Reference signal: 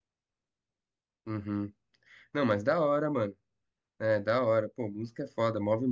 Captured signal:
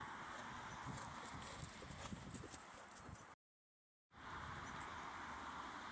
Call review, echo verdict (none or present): none